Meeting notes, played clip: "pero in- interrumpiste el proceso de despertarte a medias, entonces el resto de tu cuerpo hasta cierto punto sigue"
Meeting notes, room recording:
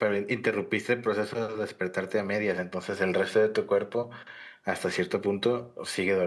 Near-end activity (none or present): none